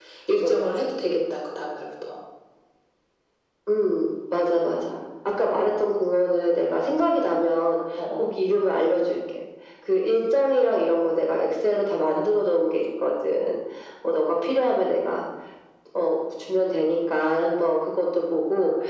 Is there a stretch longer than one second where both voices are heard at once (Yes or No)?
No